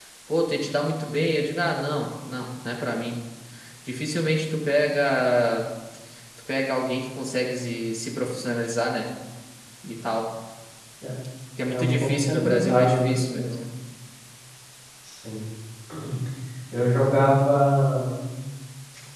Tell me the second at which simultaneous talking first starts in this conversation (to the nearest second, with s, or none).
12 s